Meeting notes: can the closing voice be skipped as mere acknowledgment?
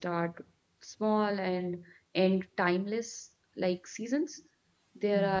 Yes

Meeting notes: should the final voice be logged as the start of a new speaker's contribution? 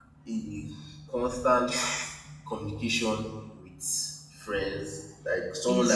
Yes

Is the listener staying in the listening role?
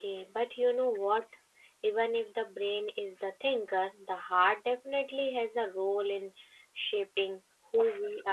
No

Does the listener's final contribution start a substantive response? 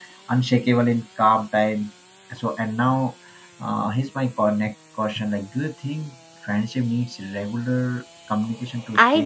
Yes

